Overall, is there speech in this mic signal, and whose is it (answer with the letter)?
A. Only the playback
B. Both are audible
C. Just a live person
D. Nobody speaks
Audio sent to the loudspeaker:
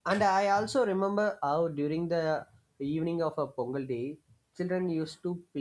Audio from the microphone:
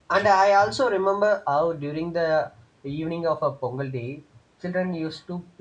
A